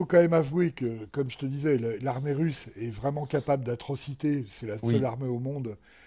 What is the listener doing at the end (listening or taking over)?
listening